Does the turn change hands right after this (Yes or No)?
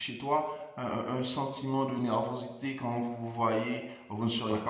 No